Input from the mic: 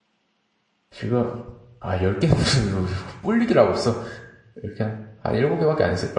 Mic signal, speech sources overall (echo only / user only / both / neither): user only